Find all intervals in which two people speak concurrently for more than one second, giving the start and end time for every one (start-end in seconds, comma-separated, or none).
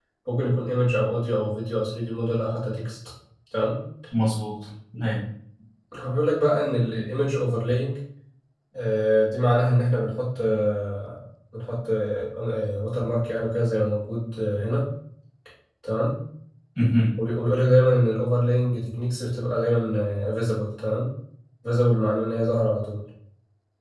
none